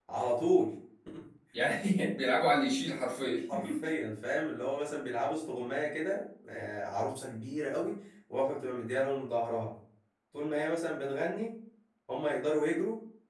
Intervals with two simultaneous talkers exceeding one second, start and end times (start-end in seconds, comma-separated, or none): none